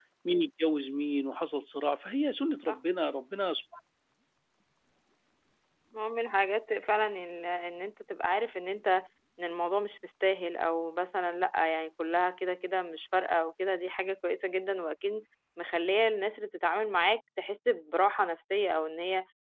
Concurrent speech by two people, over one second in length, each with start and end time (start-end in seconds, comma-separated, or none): none